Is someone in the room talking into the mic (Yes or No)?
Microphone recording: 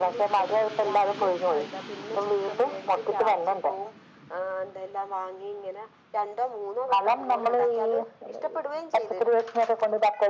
No